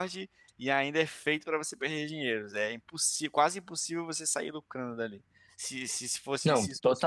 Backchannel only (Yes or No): Yes